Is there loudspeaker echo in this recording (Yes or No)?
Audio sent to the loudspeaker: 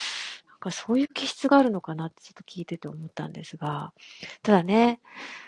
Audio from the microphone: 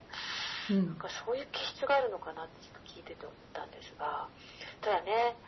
Yes